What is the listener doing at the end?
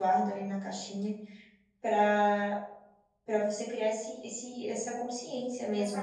taking over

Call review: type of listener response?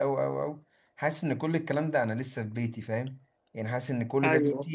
listening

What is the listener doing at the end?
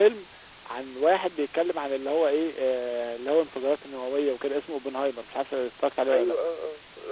taking over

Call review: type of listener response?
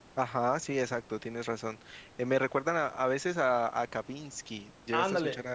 taking over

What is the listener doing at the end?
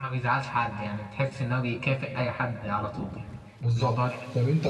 taking over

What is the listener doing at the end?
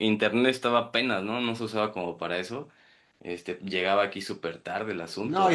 taking over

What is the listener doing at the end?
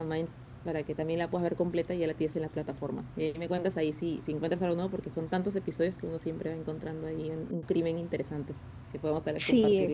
taking over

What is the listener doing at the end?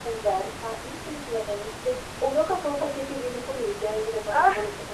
listening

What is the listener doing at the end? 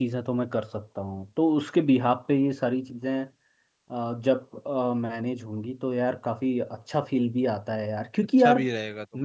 taking over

